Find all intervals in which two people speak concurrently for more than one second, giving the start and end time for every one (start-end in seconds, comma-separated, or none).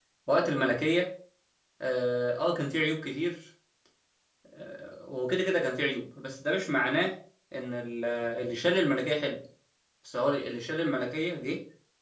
none